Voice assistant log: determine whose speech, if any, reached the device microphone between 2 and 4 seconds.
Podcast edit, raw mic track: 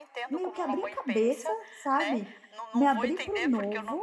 both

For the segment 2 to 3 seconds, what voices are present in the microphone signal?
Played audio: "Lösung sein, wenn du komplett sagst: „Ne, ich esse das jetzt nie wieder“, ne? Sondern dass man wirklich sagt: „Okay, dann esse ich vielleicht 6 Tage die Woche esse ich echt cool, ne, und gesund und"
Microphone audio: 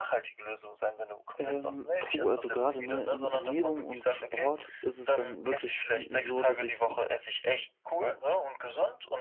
both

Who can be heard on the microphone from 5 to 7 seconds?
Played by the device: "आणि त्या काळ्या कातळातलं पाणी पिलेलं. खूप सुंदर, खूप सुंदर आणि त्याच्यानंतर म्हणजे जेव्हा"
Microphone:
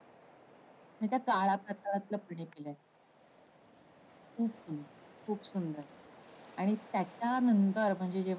echo only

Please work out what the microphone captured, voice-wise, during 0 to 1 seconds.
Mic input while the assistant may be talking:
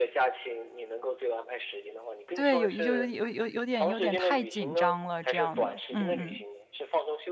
echo only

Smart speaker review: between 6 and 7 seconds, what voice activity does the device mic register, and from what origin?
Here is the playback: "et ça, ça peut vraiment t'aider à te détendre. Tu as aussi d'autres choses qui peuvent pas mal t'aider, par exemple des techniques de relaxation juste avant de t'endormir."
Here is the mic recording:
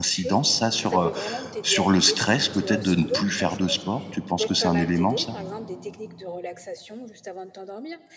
echo only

